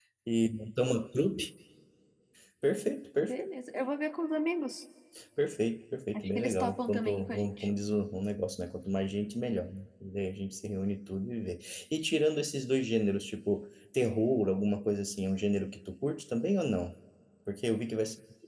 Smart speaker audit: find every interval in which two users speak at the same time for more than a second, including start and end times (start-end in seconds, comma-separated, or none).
6.1-7.7